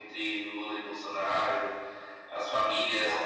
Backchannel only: Yes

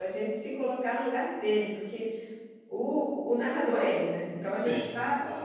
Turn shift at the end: No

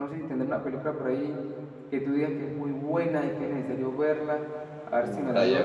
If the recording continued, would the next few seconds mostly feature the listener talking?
Yes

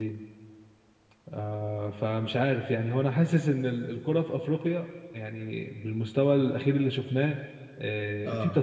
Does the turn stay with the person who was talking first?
Yes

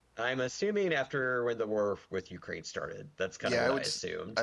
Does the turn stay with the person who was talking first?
No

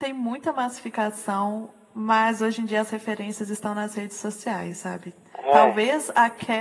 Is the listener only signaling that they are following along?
Yes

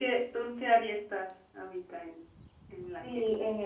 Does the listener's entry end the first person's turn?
Yes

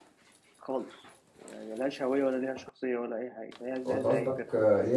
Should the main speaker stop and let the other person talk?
Yes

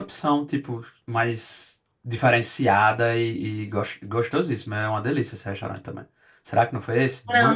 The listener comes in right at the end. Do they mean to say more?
Yes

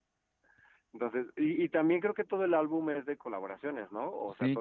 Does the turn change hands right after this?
Yes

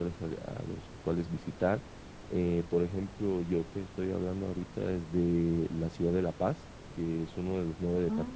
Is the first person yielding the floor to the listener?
No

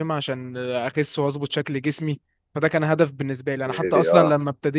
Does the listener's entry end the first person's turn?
No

